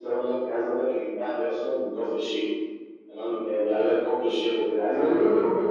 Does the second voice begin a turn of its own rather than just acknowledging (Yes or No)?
Yes